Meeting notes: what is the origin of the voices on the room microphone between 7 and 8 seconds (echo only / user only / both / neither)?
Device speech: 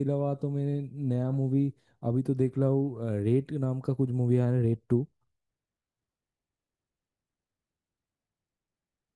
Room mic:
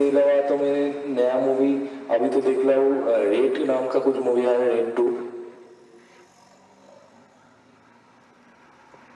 neither